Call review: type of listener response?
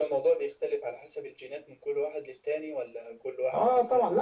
taking over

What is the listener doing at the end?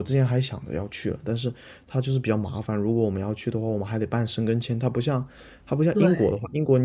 listening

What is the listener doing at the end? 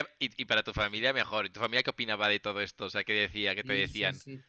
taking over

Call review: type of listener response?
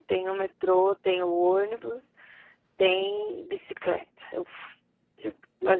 listening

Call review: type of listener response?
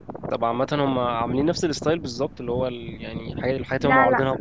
listening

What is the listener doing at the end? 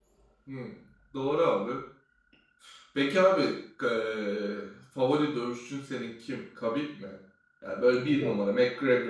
listening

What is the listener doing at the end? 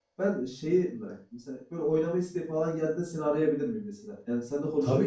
taking over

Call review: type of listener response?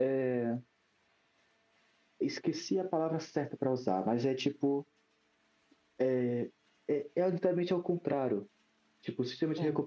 listening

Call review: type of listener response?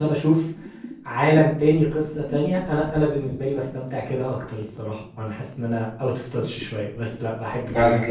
taking over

